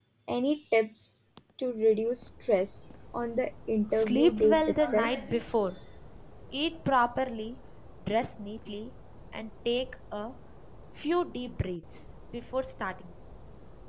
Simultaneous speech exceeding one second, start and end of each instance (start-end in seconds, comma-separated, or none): 3.9-5.1